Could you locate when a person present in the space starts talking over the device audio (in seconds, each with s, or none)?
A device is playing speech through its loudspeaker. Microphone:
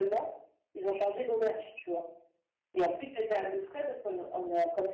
none